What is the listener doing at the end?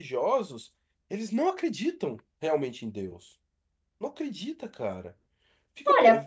taking over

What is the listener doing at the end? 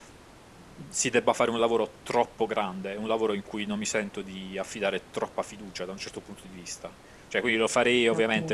listening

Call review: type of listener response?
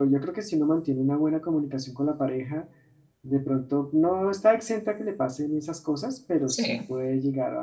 listening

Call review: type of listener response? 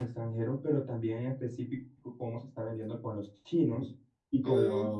listening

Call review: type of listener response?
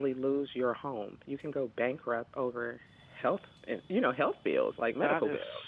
taking over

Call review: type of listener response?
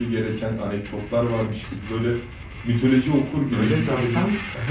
taking over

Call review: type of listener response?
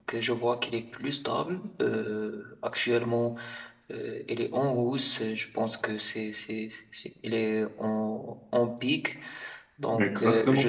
listening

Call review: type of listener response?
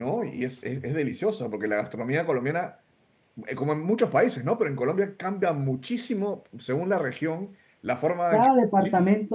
taking over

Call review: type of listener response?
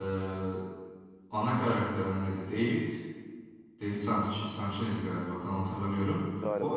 listening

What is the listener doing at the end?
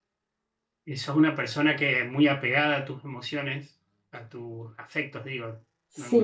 taking over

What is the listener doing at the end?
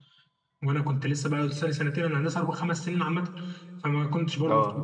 listening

